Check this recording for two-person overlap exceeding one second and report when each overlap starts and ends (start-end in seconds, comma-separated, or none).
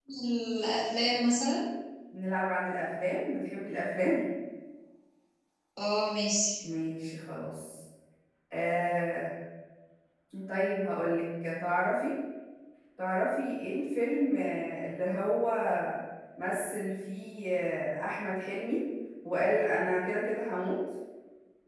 none